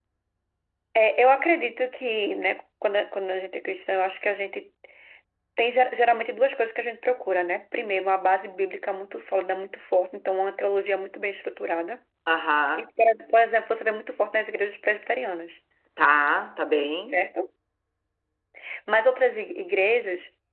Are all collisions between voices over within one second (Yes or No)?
Yes